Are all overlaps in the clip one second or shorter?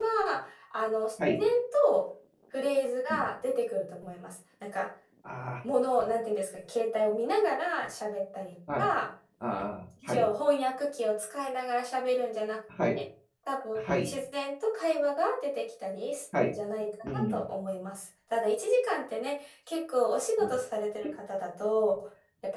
Yes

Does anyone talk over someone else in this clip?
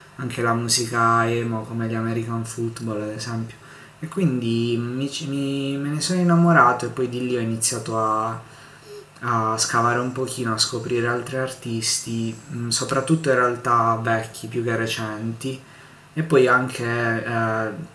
No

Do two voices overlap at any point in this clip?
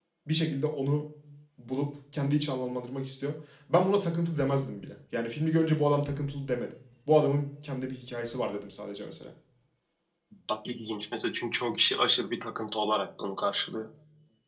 No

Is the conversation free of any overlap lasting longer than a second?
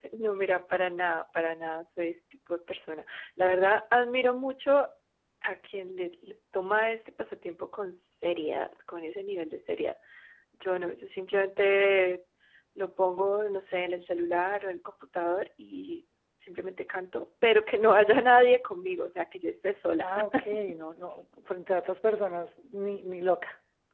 Yes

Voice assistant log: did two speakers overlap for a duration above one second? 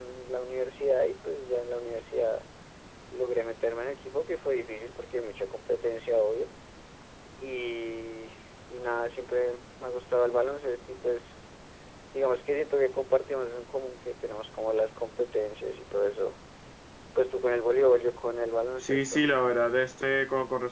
No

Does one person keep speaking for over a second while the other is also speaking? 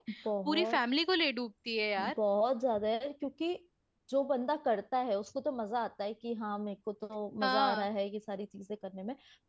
No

